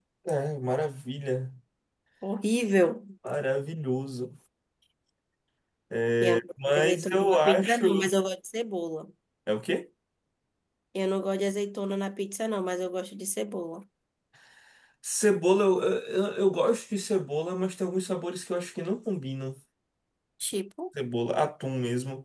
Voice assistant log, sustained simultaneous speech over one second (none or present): present